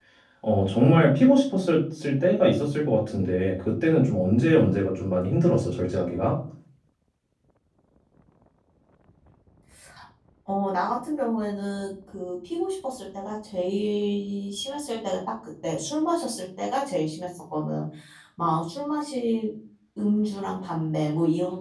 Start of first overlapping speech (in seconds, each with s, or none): none